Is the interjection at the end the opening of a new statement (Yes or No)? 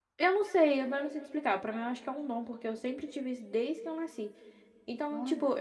No